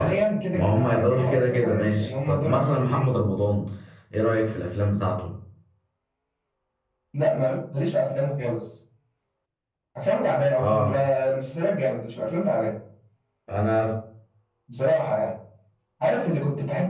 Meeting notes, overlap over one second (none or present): present